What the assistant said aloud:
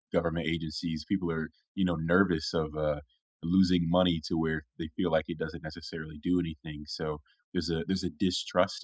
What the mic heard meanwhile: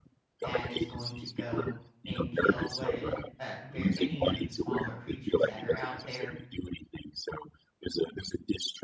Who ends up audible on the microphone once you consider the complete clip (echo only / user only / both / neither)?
both